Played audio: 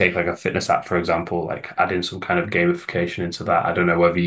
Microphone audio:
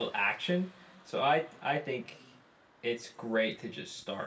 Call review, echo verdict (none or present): none